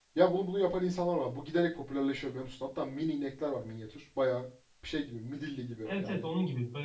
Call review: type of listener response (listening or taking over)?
taking over